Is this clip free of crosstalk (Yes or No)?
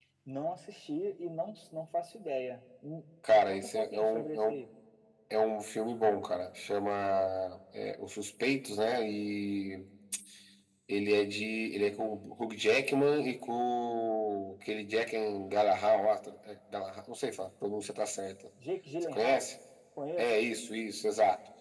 No